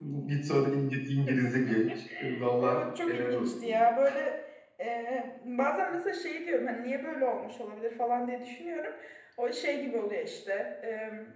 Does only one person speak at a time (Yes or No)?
No